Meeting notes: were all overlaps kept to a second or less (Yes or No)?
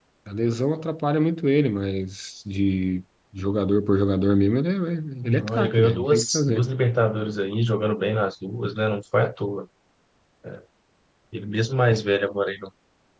No